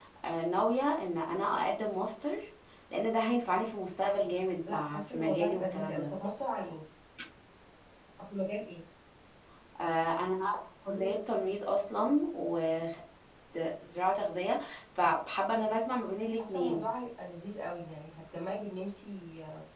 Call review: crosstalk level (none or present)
present